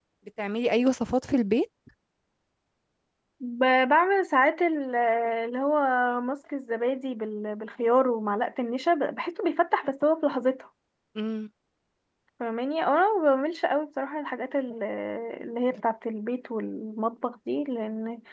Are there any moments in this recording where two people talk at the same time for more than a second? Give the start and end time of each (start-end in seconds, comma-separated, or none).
none